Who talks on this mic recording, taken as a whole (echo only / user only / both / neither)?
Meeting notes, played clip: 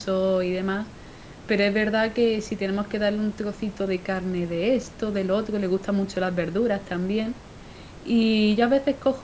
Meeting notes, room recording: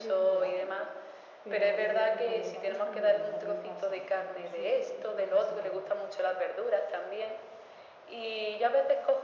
both